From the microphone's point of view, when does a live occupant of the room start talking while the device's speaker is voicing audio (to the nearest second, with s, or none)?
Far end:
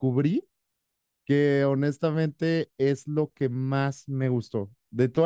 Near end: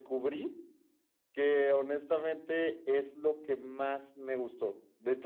none